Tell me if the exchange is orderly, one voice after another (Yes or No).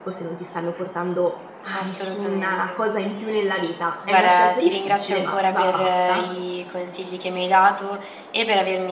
No